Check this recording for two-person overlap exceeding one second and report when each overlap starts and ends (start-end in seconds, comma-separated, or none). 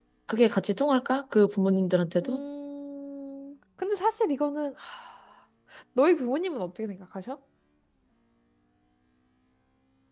none